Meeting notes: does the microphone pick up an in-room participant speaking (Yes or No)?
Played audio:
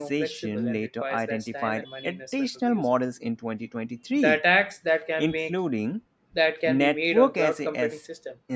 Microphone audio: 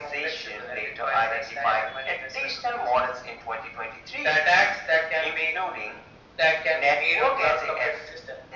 No